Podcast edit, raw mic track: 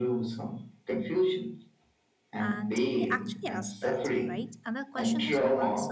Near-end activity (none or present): present